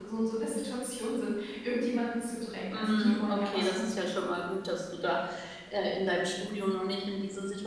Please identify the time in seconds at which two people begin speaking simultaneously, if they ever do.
3 s

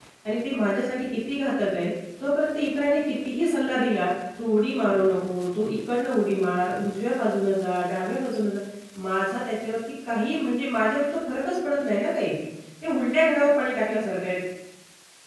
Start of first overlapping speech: none

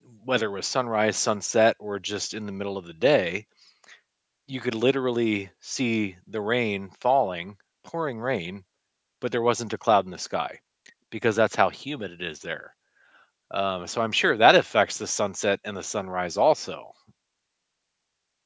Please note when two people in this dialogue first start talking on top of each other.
none

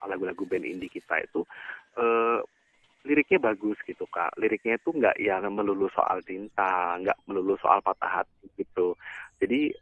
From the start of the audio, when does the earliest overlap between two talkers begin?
none

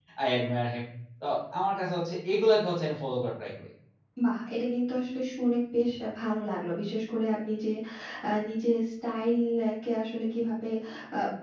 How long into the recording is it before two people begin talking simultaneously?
none

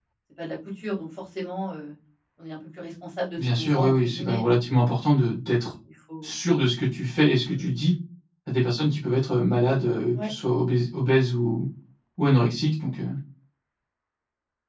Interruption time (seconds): 3 s

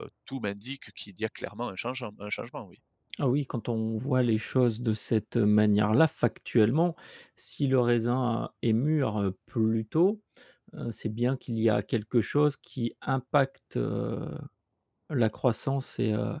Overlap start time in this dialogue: none

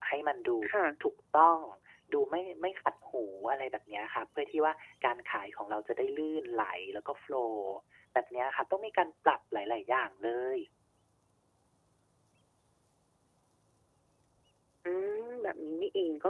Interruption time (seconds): none

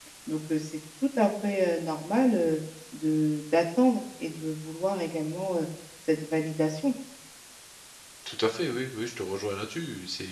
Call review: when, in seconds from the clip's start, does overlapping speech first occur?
none

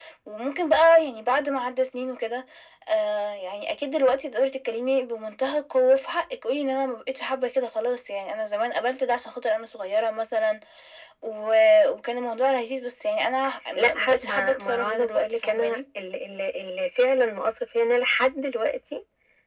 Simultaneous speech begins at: 14 s

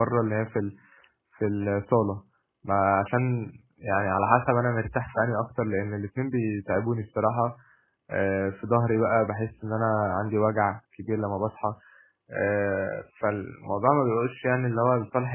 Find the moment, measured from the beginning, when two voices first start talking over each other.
none

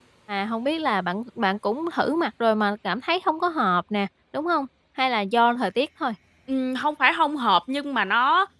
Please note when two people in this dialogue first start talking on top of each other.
none

